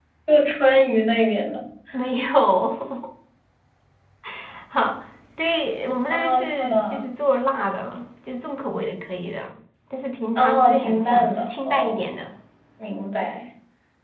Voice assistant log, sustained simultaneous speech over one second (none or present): present